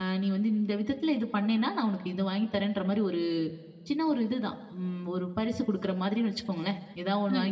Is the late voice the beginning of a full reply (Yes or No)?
No